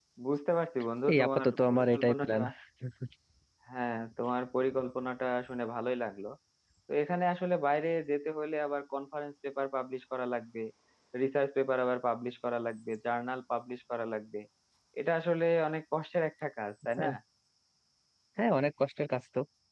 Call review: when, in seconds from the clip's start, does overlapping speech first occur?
1.1 s

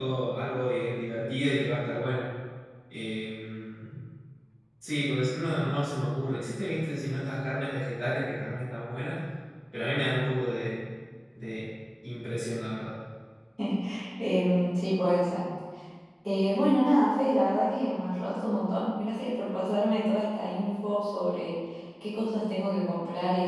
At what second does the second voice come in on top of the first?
none

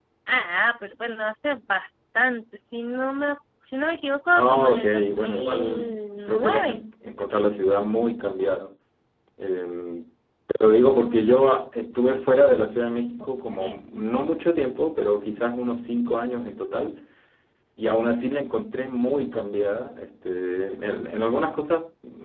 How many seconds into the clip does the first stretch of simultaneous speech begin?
4.3 s

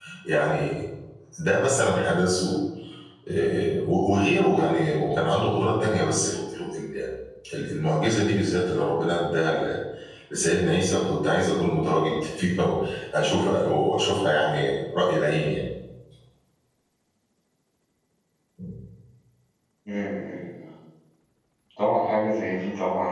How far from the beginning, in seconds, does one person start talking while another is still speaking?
none

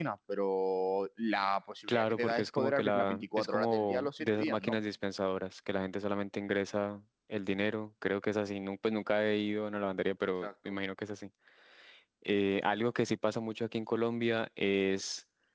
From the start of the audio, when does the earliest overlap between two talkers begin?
1.9 s

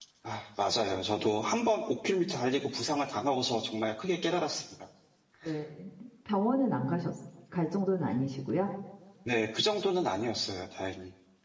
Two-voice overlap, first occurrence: none

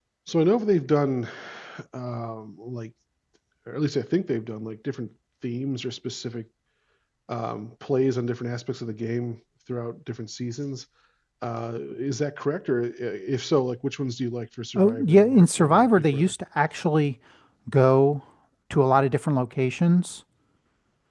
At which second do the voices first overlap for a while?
14.8 s

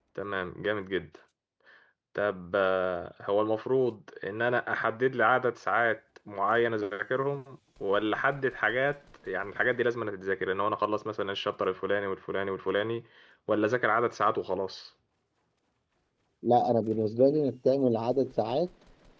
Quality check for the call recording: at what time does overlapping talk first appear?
none

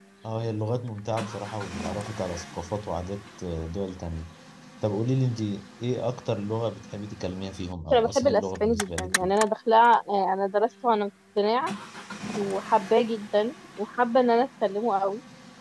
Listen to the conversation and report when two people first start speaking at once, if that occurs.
7.9 s

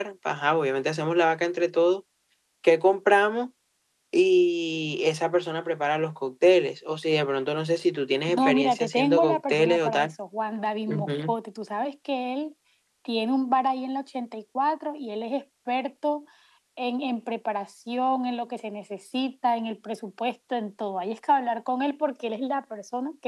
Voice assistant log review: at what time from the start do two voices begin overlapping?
8.3 s

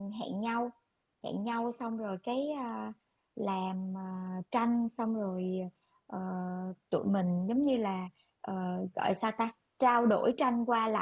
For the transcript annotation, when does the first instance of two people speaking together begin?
none

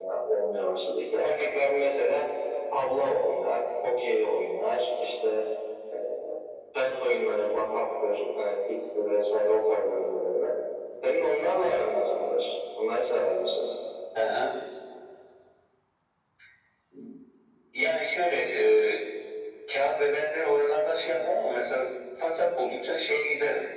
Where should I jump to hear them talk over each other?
none

